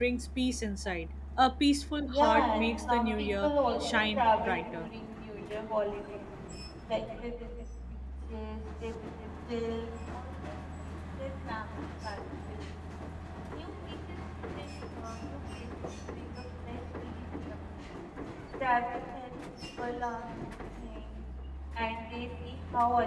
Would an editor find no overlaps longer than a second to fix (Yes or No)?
No